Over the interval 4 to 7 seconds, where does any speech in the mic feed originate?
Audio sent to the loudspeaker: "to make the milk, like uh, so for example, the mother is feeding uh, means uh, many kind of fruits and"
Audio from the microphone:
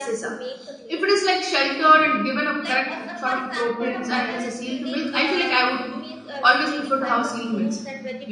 both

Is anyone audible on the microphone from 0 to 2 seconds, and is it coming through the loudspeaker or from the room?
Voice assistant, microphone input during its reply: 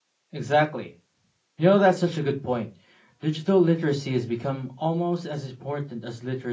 user only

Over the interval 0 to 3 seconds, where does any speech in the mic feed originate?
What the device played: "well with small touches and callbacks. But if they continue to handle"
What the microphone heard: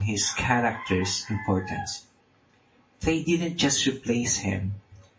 user only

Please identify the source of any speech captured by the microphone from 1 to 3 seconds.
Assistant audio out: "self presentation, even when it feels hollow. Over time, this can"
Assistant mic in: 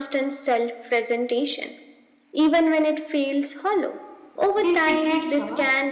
echo only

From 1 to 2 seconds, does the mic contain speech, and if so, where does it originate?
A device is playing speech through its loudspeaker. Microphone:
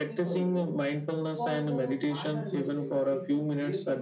both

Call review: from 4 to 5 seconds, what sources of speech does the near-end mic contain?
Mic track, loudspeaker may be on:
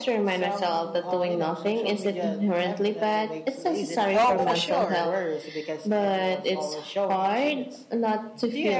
both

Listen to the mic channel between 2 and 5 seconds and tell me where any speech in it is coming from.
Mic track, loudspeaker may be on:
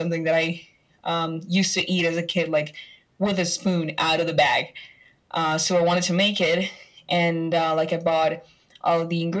echo only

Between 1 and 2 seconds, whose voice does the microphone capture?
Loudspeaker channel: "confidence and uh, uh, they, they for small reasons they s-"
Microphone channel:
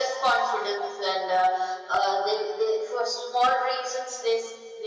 echo only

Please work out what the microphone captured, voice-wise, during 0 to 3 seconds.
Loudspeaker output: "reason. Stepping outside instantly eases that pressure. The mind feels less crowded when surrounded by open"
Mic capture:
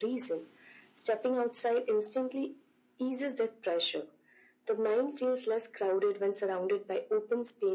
echo only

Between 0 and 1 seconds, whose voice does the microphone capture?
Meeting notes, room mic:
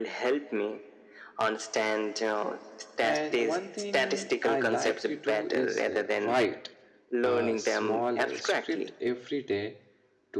echo only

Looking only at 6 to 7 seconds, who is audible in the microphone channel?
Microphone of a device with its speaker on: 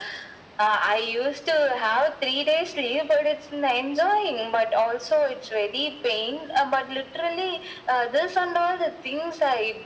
echo only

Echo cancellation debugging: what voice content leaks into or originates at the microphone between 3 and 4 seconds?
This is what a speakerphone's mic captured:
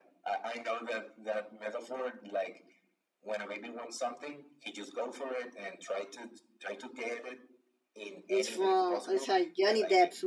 echo only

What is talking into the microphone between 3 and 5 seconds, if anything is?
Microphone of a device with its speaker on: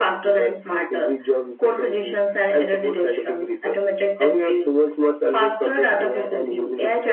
echo only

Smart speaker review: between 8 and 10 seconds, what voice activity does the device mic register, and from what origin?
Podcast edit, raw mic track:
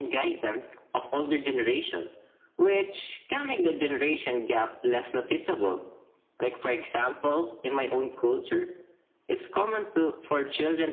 echo only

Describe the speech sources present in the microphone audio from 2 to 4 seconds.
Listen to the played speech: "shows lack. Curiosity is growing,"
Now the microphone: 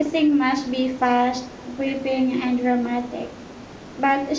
user only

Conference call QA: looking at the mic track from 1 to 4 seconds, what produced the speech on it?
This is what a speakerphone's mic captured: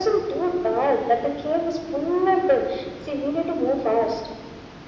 echo only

